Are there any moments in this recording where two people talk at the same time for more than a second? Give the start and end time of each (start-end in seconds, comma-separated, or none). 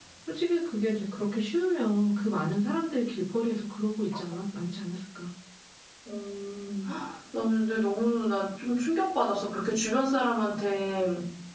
none